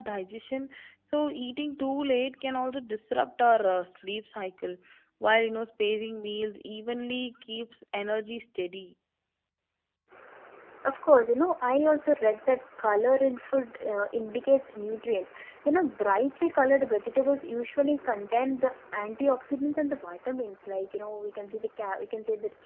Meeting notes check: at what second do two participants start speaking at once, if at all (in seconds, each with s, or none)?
none